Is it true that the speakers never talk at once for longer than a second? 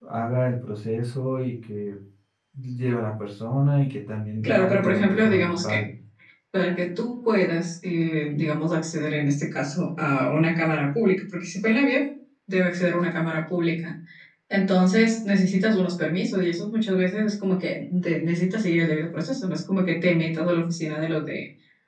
No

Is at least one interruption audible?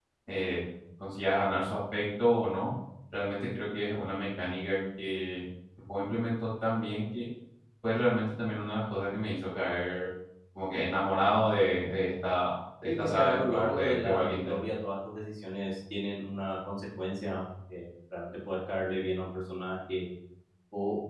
Yes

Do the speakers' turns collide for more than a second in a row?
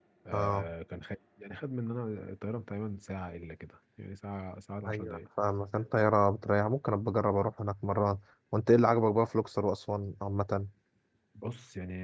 No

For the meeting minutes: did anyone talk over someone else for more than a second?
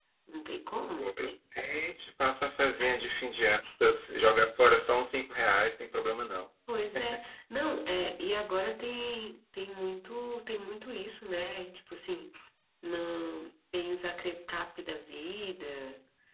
No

